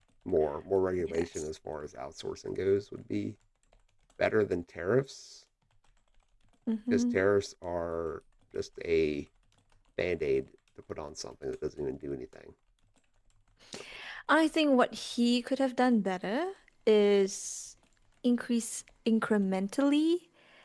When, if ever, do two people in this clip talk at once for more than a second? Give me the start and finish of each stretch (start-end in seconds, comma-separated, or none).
none